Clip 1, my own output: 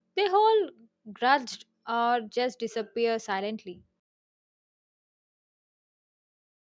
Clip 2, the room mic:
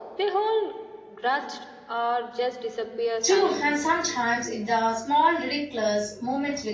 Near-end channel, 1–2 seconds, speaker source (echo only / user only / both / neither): echo only